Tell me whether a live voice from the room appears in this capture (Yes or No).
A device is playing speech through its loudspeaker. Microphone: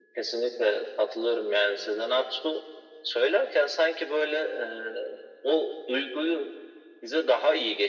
No